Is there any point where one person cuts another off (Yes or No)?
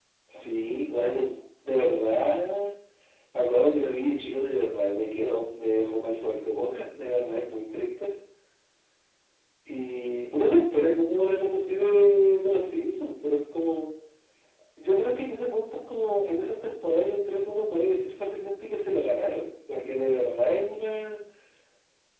No